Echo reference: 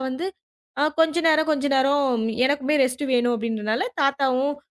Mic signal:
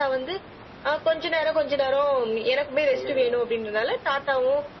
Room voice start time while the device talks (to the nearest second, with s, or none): 3 s